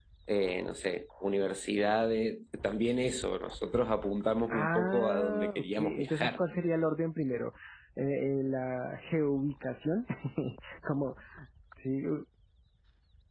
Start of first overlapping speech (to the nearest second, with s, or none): 5 s